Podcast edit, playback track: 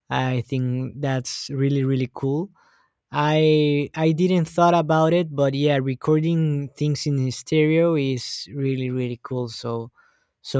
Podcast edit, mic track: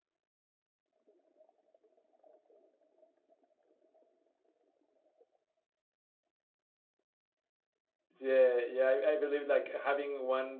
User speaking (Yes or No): Yes